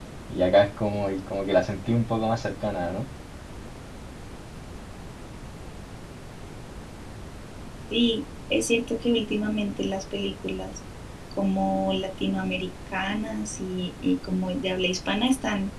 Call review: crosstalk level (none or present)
none